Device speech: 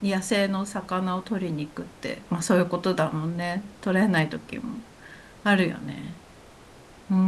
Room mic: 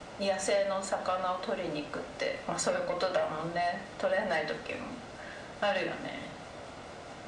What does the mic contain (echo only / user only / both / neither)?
echo only